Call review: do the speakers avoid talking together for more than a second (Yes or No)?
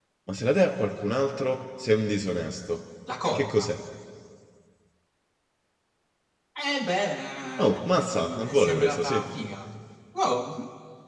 No